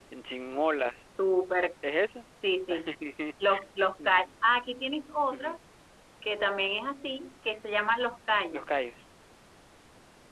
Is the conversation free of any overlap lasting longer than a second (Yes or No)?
Yes